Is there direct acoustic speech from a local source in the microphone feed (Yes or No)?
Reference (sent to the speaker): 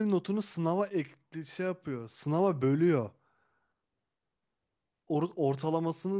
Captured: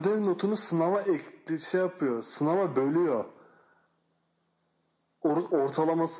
No